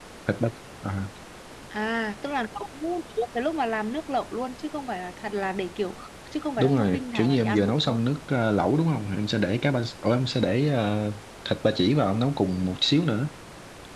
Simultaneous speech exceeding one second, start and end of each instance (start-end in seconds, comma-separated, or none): 6.6-8.0